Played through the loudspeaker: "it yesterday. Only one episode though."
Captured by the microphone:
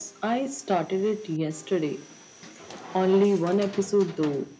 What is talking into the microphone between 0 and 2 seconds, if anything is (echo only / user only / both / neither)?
echo only